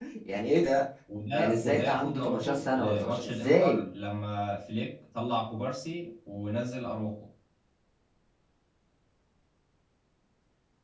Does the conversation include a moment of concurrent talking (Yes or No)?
Yes